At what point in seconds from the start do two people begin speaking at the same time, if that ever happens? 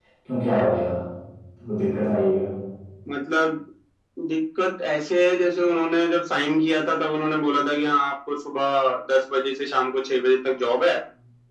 none

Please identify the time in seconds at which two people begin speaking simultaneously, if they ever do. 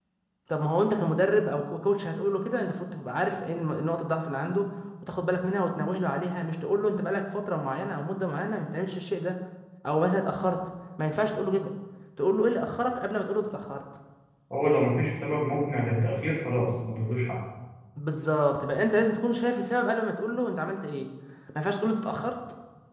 none

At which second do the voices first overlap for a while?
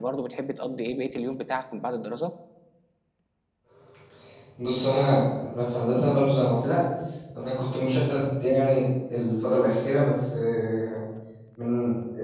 none

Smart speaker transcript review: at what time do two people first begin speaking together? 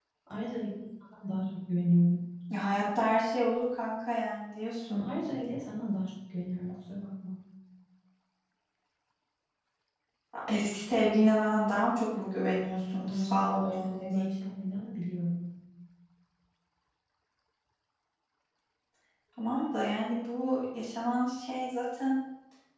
13.0 s

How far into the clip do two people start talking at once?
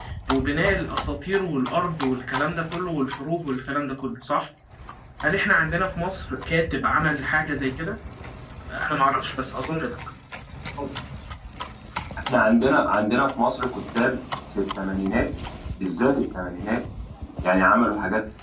none

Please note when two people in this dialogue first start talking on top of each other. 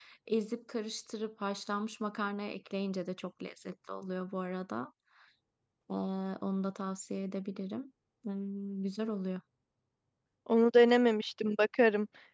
none

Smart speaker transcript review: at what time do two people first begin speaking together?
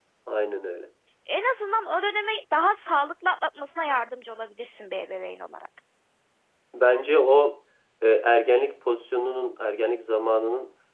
none

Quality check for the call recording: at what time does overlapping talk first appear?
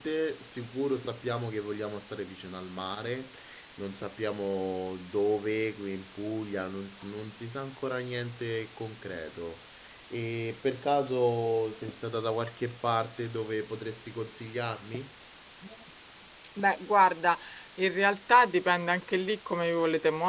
none

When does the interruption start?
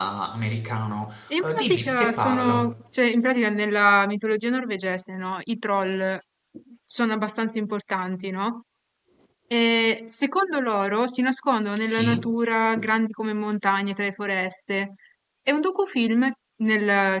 1.4 s

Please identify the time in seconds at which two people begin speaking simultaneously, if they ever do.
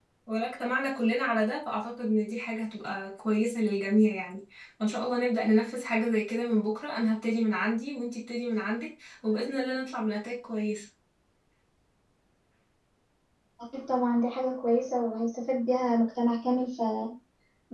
none

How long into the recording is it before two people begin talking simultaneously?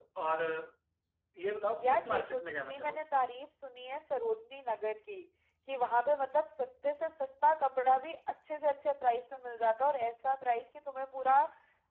1.8 s

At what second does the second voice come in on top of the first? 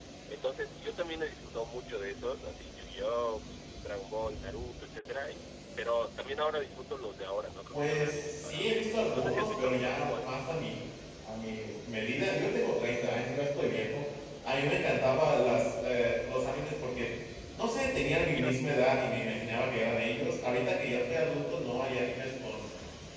7.7 s

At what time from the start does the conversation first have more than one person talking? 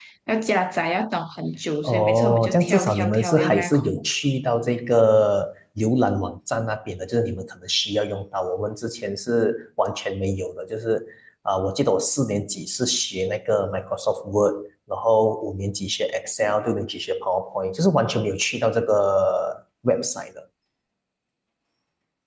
1.8 s

